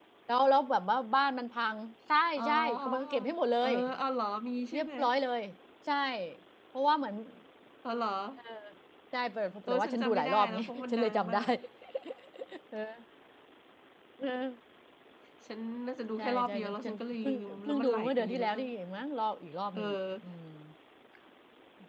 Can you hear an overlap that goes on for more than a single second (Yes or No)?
Yes